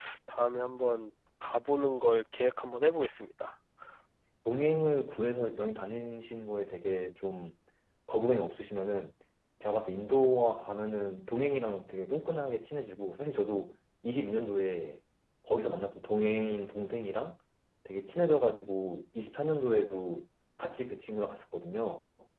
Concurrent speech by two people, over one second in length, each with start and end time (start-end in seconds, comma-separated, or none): none